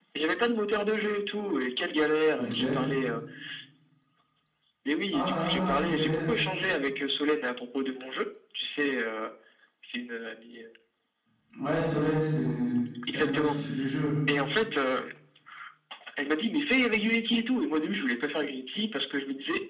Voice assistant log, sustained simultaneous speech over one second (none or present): present